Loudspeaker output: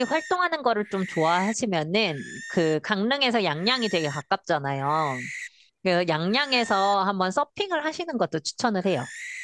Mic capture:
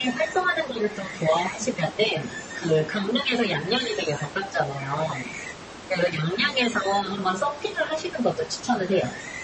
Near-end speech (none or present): none